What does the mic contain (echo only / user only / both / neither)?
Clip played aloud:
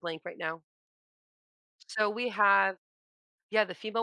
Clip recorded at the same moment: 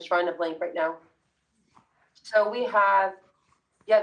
echo only